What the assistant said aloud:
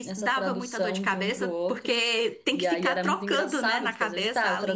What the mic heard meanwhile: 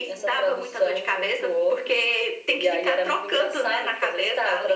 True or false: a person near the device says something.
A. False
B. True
A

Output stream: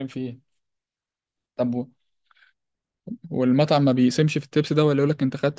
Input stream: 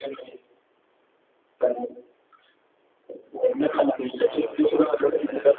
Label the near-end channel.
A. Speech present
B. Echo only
A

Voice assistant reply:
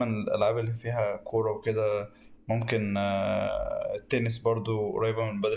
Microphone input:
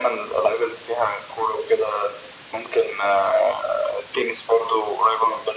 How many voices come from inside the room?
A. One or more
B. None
B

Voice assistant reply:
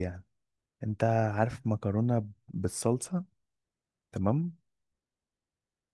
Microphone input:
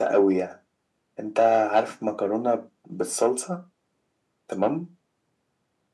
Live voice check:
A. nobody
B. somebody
A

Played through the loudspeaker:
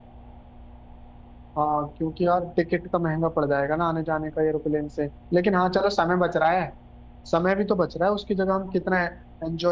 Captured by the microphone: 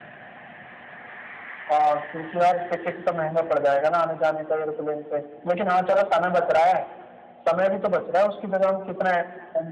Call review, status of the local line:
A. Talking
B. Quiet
B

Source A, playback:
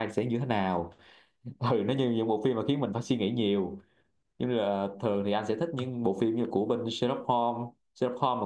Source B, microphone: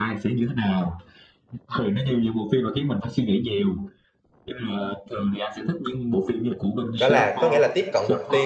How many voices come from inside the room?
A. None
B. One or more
B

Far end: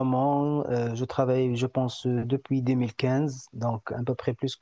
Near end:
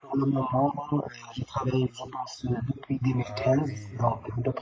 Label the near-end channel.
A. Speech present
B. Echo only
A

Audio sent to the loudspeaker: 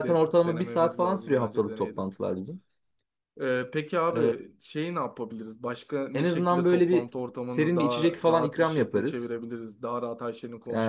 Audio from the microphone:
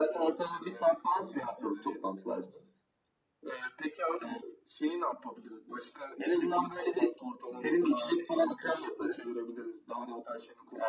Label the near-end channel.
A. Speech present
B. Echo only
B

